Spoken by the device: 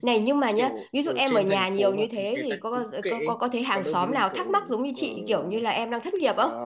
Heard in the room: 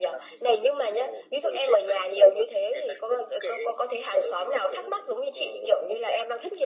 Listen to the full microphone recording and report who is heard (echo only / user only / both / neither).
echo only